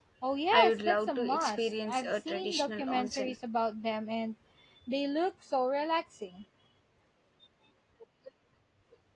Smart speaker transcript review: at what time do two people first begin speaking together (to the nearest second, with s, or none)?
1 s